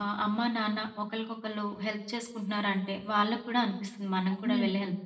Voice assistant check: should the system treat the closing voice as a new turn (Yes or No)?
Yes